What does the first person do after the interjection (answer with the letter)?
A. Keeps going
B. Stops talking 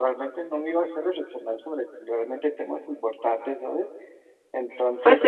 B